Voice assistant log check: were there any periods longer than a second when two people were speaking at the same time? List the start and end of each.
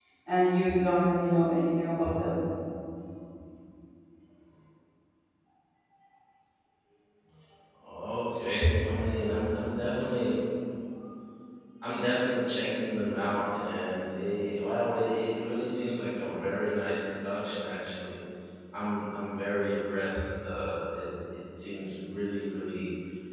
none

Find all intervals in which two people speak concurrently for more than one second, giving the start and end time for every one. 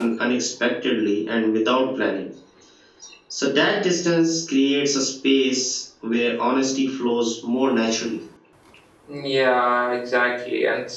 none

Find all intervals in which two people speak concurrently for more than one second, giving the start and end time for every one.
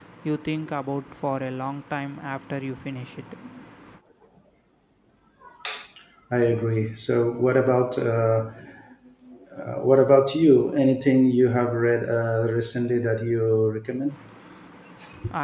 none

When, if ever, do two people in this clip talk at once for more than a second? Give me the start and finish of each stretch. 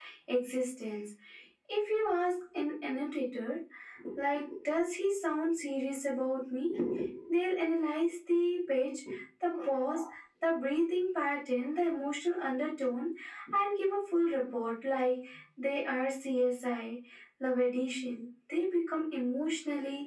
none

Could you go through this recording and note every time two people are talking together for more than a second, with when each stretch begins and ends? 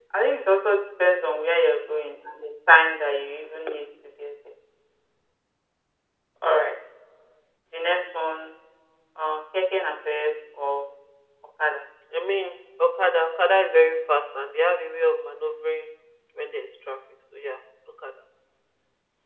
none

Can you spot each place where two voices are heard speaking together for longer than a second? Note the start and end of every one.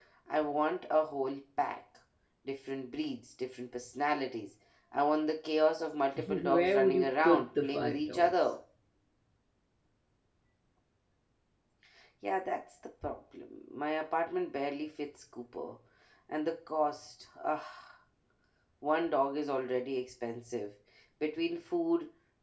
6.3-8.3

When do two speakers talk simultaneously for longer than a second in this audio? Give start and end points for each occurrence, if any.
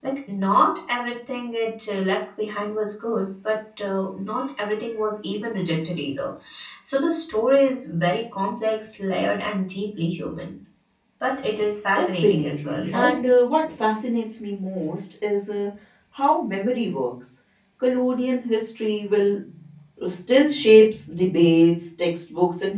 11.9-13.2

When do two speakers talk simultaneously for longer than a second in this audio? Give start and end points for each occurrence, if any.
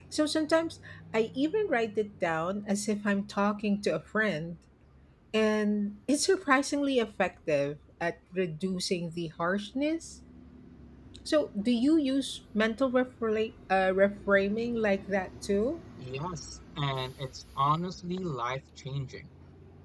none

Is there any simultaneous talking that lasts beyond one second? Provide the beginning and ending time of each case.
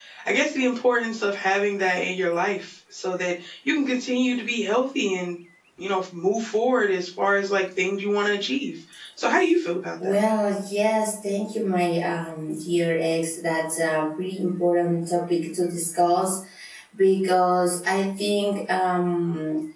none

